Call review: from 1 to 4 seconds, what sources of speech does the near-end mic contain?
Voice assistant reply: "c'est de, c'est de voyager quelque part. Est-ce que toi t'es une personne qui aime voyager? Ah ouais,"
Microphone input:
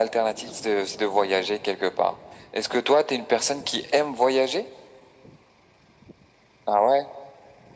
echo only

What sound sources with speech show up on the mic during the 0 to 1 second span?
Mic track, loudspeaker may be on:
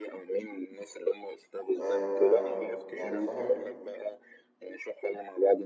echo only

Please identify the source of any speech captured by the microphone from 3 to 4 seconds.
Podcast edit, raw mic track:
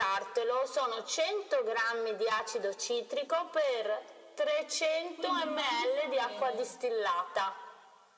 echo only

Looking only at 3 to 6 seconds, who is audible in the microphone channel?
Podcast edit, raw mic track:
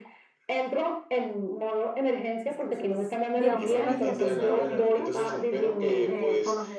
both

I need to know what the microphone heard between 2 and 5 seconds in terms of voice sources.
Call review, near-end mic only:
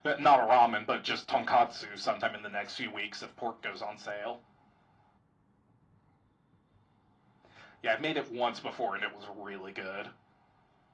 echo only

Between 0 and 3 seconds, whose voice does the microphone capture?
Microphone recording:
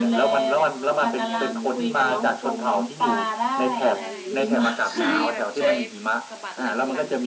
both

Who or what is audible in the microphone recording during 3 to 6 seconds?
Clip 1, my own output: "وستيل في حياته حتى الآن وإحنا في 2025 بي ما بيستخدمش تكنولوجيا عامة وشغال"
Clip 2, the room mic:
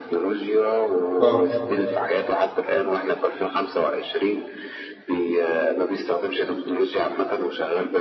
echo only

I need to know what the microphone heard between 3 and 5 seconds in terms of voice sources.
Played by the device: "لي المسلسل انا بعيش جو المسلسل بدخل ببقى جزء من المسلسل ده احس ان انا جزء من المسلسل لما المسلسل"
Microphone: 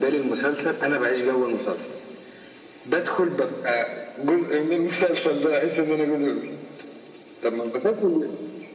echo only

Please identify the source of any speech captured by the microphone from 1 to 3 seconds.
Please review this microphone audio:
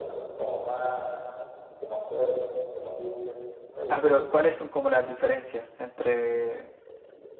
echo only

